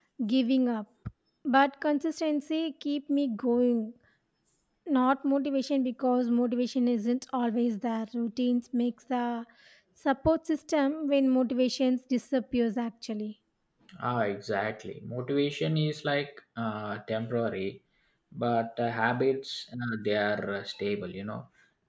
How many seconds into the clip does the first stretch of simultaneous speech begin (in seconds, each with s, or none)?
none